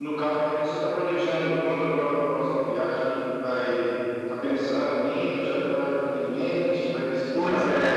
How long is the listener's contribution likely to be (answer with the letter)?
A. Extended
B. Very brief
A